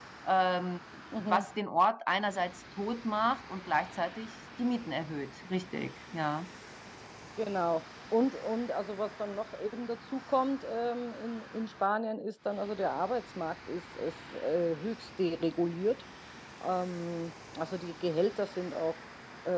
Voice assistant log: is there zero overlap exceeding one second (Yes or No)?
Yes